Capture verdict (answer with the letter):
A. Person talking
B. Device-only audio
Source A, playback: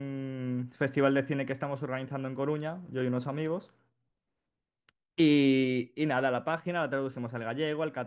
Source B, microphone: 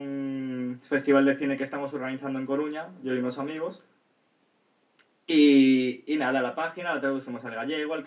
B